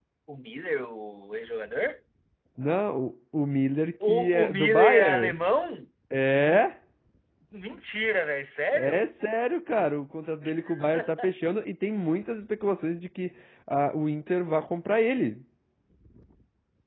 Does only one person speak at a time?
No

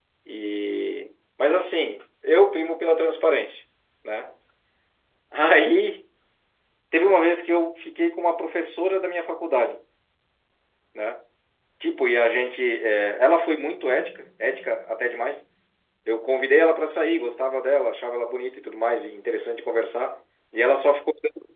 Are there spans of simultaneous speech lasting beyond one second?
No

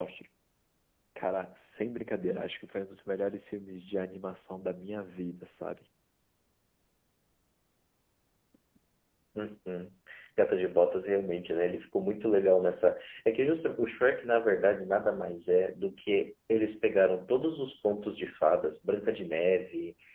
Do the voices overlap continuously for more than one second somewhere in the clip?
No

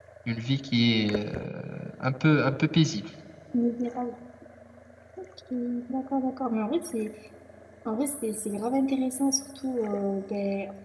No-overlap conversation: Yes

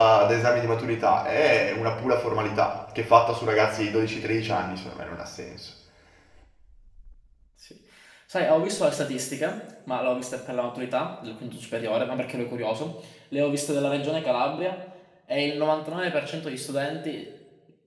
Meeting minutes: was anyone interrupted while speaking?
No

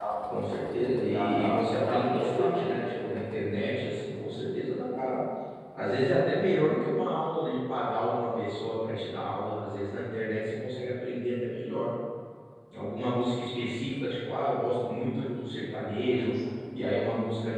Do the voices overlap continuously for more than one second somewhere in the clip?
Yes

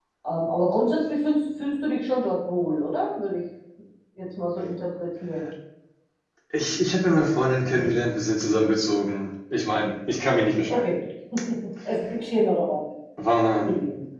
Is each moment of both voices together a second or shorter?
Yes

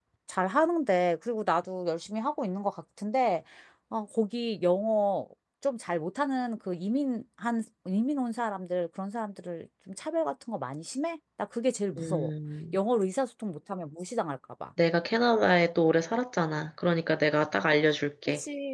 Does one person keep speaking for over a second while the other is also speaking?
No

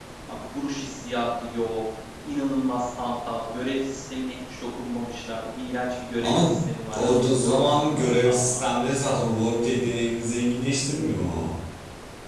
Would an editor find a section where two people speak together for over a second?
Yes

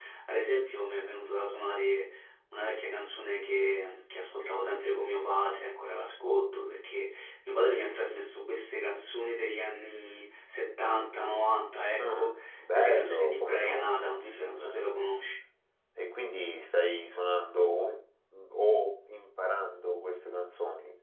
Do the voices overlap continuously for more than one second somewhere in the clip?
Yes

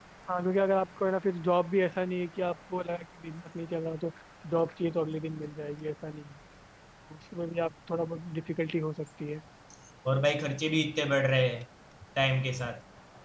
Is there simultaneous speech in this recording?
No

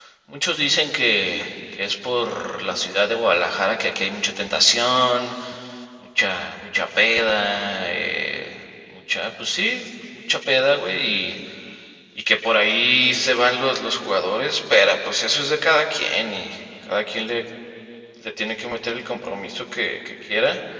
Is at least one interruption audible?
No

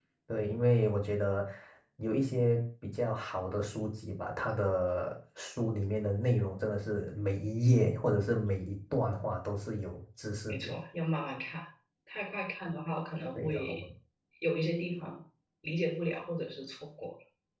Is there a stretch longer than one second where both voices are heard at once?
No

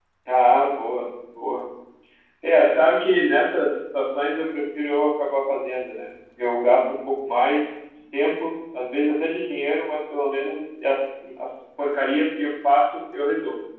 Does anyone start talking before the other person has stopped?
No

